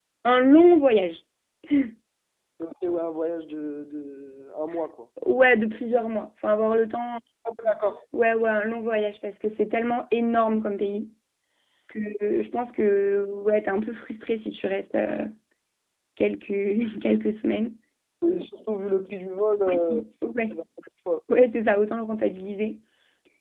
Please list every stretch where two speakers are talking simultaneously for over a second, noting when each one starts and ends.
none

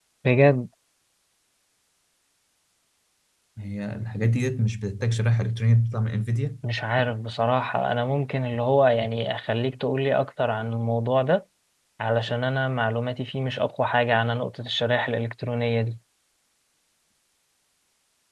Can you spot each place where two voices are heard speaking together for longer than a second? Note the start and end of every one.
none

